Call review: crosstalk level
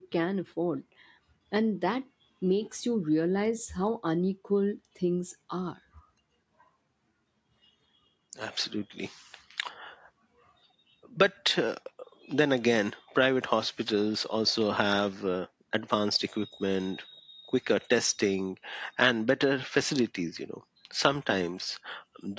none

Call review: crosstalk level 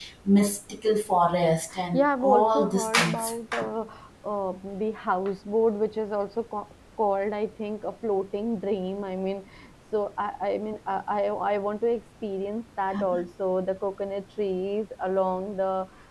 present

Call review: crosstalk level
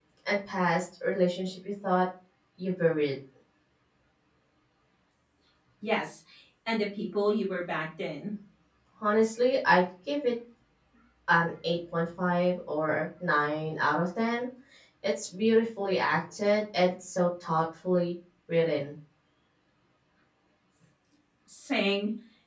none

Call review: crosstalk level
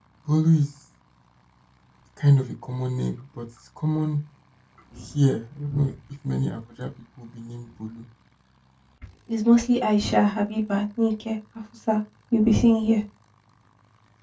none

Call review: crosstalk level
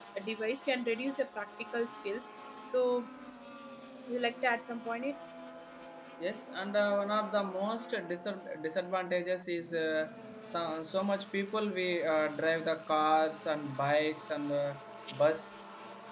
none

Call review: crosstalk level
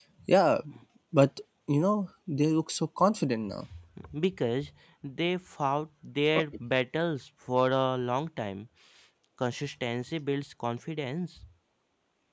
none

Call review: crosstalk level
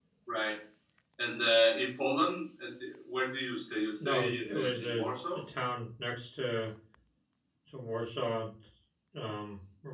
present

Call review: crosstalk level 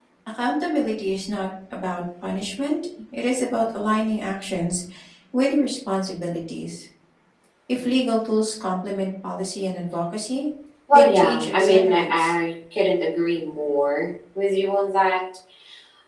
present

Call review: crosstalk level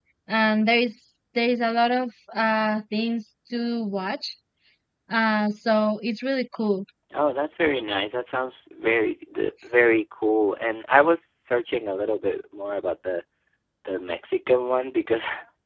none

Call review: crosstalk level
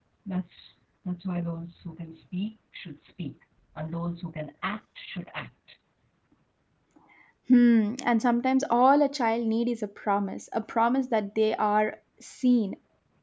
none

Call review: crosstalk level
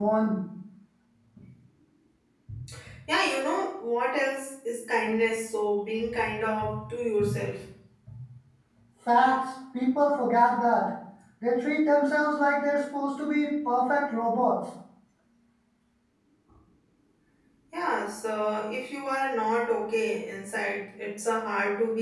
none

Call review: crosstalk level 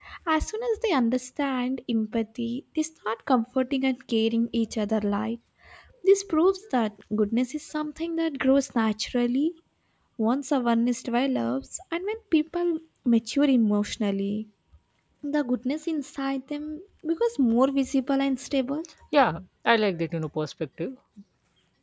none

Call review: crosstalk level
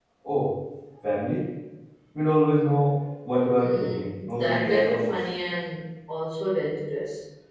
present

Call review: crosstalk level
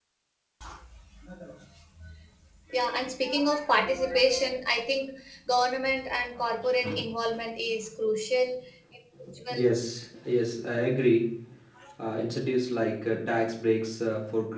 none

